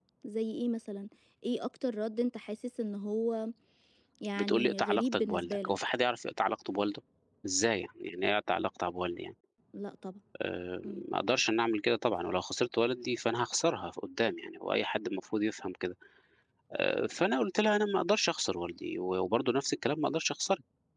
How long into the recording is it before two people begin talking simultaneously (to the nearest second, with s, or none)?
4 s